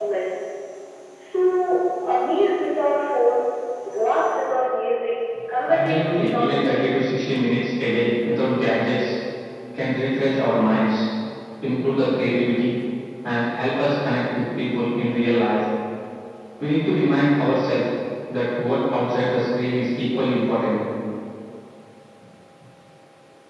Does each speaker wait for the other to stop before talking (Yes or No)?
No